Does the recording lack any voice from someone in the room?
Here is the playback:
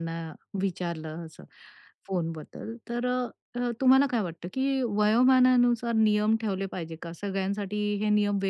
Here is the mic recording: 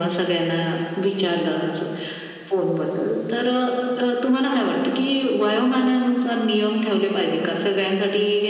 Yes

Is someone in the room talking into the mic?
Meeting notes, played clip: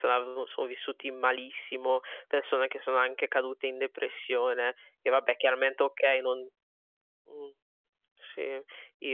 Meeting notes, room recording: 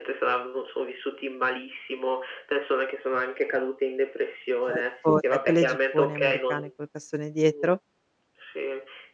Yes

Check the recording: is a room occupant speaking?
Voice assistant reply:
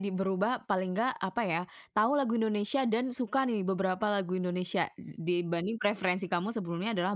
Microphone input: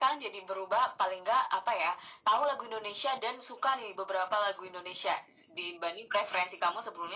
No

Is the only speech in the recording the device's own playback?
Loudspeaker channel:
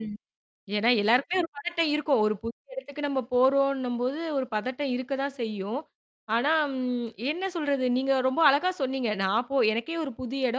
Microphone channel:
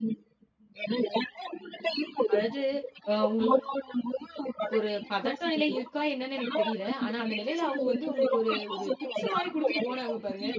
No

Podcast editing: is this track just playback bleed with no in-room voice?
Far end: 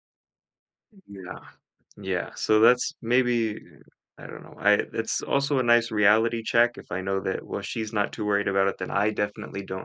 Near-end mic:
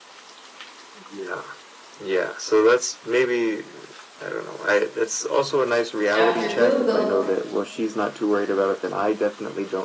No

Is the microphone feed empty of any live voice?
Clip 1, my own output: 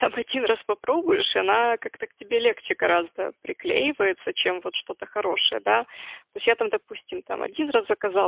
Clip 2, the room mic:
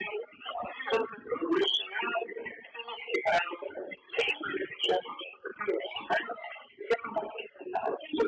Yes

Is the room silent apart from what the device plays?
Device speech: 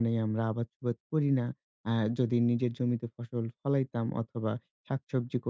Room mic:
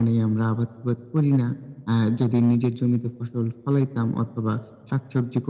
Yes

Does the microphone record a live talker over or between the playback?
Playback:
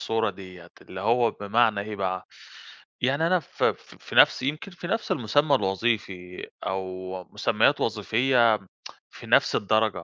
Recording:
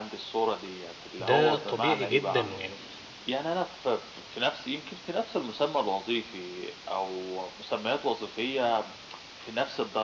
Yes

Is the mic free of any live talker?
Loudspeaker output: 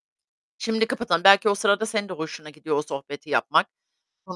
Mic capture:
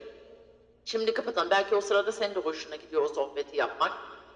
Yes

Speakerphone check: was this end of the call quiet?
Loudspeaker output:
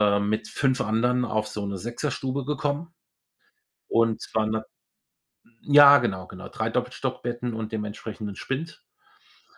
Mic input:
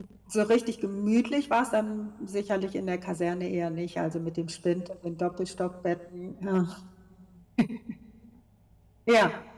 No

